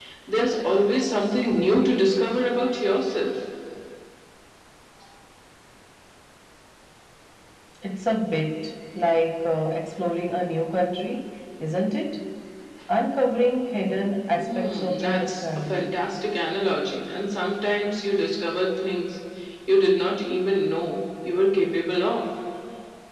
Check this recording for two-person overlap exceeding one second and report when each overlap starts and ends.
14.4-16.0

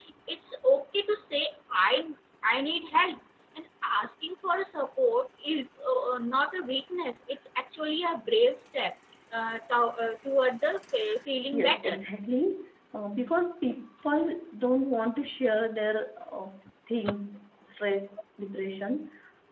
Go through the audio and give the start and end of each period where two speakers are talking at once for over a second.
none

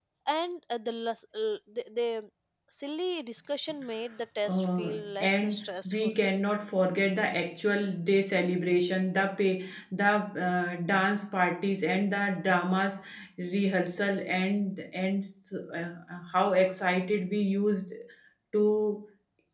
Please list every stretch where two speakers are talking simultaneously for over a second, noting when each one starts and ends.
4.5-6.2

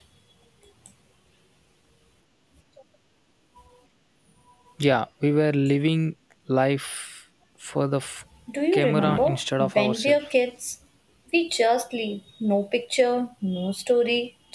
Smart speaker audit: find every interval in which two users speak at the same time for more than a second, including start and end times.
8.7-10.2

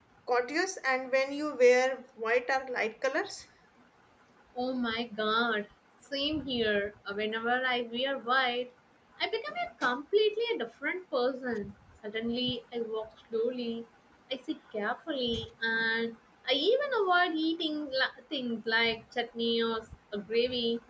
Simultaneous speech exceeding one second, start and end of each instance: none

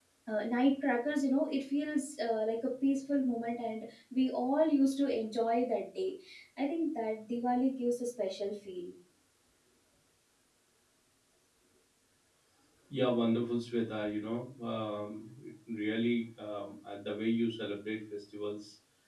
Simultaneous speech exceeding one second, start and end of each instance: none

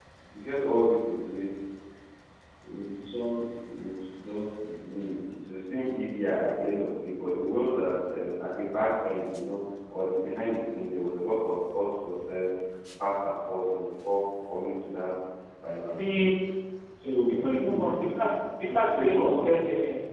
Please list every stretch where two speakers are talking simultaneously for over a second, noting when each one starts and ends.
17.1-18.3

